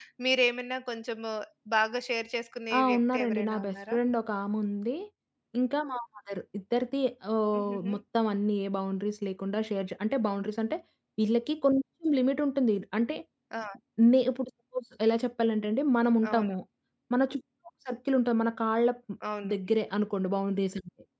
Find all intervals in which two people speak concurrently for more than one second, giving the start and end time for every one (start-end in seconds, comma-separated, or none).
2.7-4.0